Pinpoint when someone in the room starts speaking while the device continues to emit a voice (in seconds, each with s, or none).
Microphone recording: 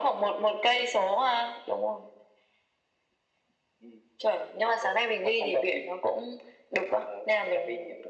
none